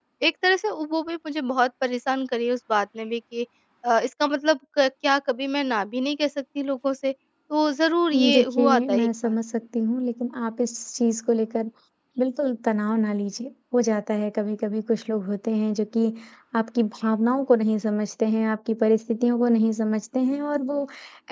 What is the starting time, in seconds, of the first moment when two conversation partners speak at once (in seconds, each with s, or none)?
8.1 s